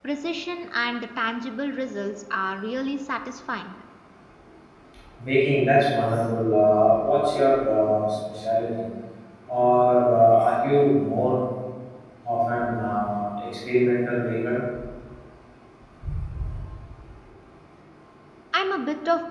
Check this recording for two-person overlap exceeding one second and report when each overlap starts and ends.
none

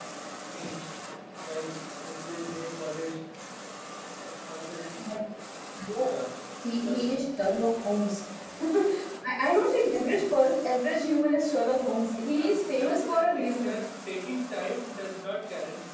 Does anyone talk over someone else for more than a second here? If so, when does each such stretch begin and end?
12.3-13.8

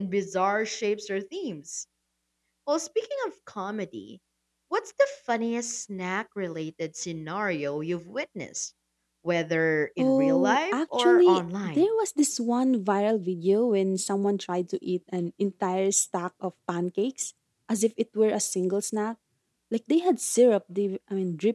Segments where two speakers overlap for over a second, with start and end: 10.0-11.9

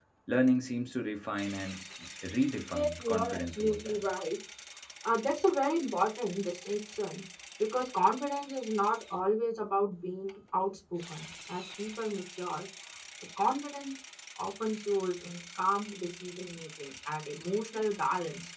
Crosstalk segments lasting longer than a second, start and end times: 2.7-4.0

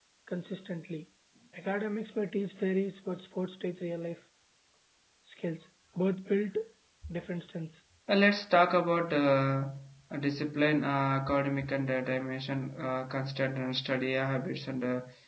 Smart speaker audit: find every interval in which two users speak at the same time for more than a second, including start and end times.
none

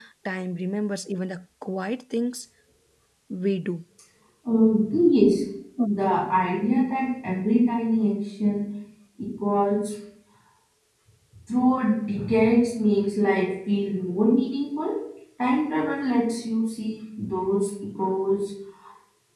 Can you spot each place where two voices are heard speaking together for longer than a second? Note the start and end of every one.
none

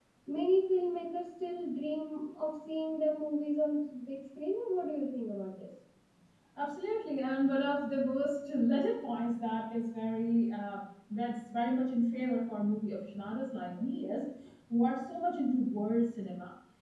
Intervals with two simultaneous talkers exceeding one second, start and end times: none

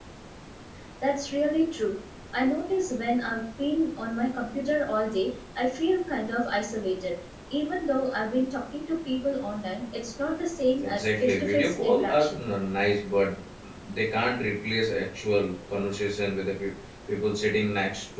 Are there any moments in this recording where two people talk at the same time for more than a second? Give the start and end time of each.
10.8-12.5

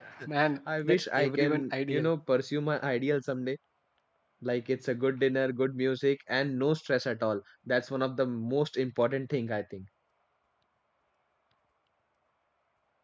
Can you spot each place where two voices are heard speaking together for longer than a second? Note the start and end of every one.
0.8-2.1

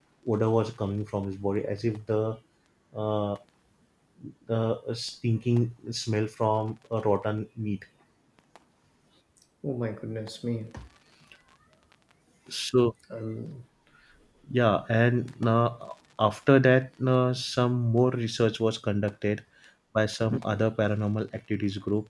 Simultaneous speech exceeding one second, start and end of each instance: none

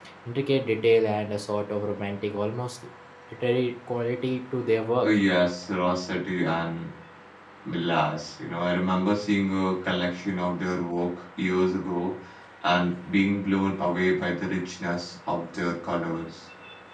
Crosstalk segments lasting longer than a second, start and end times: none

